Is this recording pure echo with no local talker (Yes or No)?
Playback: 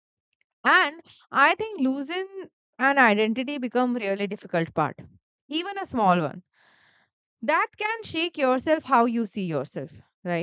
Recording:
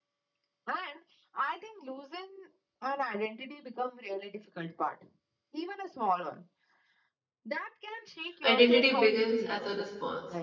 No